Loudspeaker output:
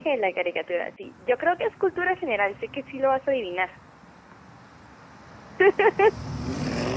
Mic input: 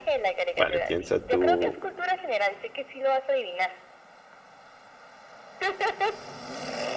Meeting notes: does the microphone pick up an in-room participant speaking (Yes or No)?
Yes